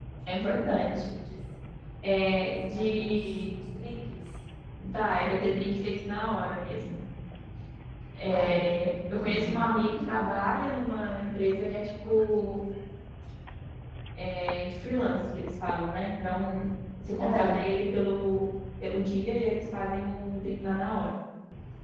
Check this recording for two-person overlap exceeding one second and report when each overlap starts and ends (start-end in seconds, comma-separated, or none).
2.3-3.6